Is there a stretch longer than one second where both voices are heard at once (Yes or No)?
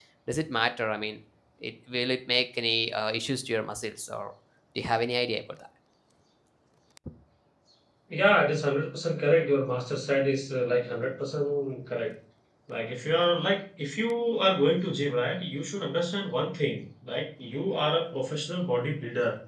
No